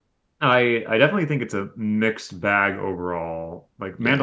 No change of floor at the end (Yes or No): Yes